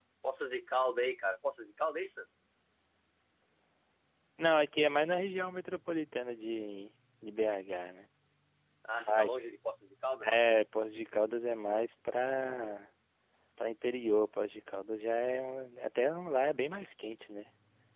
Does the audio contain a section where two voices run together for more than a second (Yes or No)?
No